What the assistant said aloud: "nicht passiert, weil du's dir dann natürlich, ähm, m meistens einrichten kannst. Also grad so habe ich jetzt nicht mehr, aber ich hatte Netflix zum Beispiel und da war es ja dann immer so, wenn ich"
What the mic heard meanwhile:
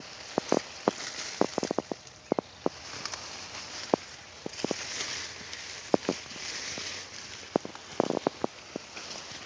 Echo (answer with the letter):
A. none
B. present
A